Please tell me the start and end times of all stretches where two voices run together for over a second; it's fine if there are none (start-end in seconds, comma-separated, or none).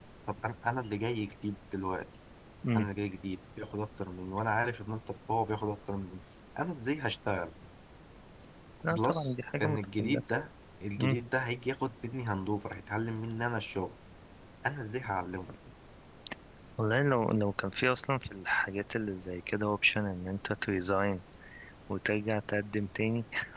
8.9-10.2